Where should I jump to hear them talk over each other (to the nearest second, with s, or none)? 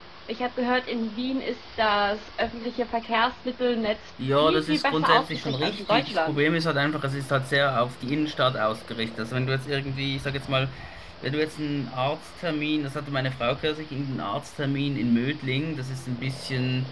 4 s